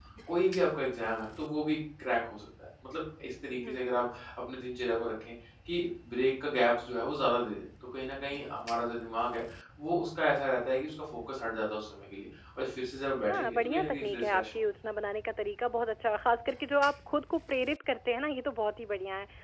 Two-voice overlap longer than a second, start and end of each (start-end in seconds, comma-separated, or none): 13.2-14.6